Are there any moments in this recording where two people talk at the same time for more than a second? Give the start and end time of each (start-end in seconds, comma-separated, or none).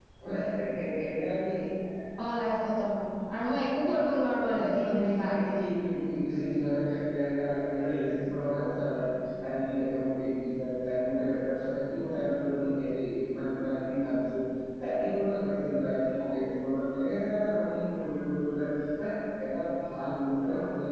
3.5-5.3